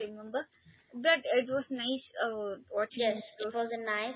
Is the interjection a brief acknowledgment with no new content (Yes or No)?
No